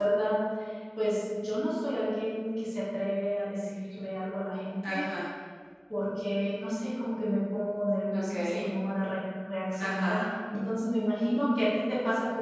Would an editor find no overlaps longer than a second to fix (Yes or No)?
Yes